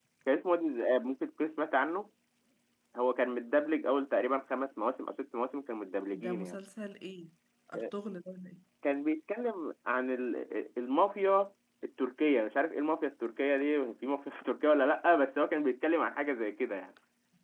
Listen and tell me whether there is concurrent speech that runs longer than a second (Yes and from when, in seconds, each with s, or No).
No